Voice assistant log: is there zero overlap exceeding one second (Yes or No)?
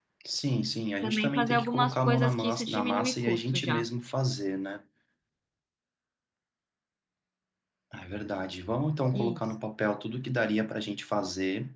No